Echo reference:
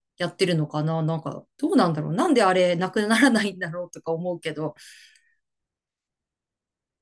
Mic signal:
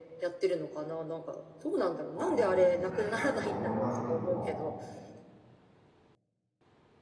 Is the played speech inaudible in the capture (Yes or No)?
No